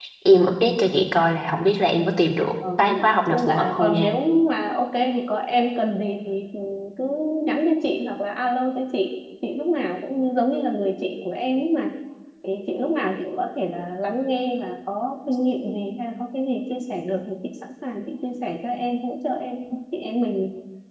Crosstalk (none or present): present